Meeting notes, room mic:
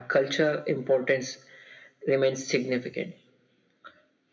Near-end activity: none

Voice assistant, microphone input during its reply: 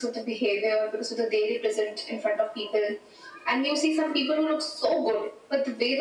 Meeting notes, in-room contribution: none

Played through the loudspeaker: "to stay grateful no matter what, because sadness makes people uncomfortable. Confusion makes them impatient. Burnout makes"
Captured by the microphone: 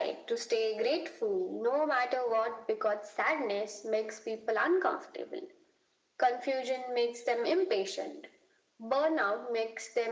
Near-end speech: none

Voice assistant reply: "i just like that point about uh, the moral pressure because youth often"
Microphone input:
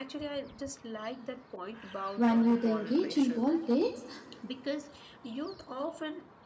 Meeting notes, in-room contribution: present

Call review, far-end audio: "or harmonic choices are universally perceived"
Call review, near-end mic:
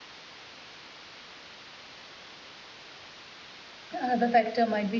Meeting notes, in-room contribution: present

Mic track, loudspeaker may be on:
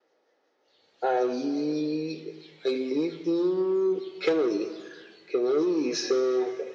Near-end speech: none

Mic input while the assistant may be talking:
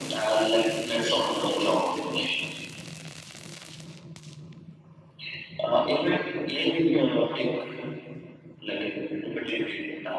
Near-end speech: none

